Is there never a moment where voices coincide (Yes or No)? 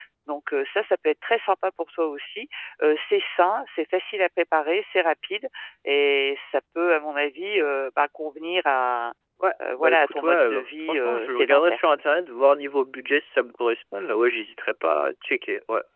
No